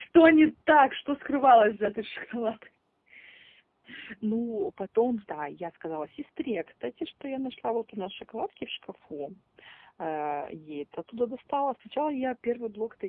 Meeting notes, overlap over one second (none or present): none